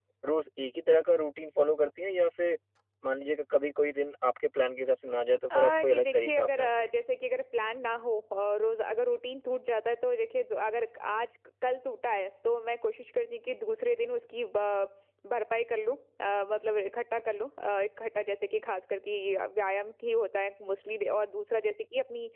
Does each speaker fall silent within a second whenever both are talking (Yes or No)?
No